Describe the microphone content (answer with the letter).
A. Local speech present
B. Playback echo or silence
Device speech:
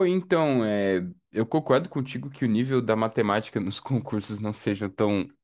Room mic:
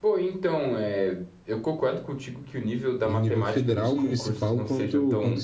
A